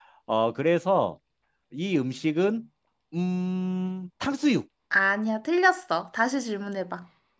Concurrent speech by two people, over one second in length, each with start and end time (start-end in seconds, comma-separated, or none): none